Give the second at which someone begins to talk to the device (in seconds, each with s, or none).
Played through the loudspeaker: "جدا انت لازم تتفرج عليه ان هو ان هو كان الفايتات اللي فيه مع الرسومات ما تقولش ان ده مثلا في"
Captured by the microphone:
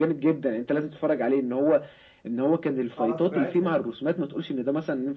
2.8 s